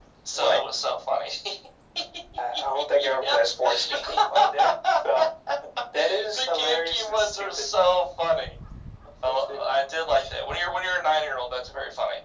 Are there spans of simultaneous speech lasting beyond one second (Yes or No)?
Yes